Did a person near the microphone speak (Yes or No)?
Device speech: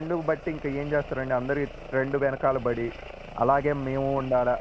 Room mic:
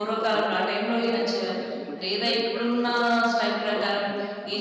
Yes